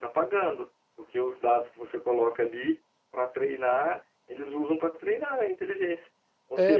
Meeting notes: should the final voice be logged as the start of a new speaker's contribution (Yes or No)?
Yes